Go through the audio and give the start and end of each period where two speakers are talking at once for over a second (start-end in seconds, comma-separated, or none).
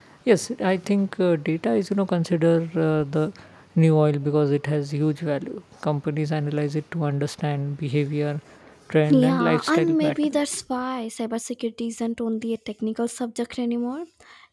9.1-10.4